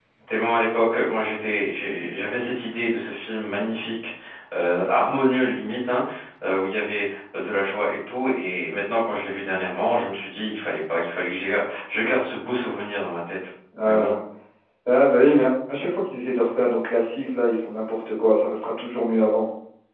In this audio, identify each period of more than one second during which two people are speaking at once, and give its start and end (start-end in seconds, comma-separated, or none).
none